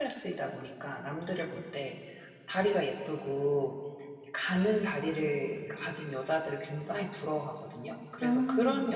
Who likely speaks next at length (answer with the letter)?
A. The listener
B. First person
B